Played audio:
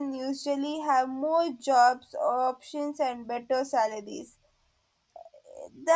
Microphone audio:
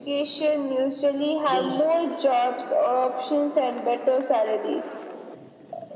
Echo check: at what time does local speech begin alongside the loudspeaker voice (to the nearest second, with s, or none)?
2 s